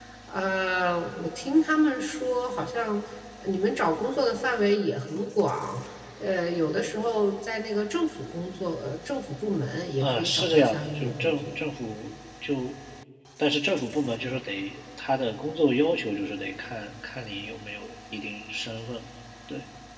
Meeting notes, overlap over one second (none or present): present